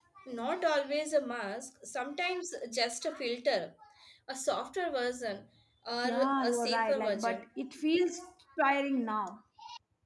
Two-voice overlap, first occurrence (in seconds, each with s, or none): 6.0 s